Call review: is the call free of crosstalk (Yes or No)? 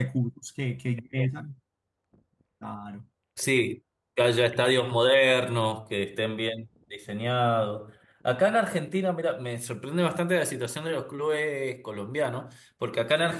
Yes